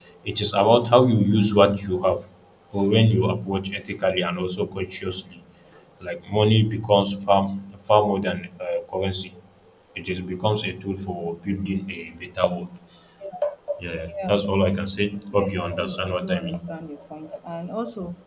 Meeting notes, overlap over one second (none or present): present